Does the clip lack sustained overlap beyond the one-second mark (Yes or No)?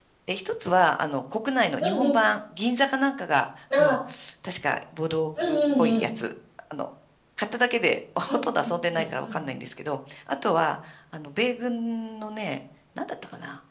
Yes